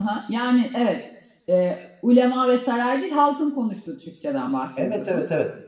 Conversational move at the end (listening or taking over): taking over